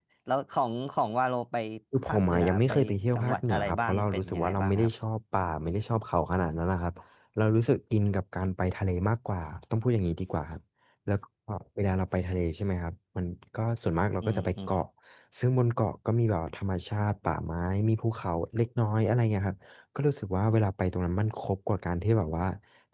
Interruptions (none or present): present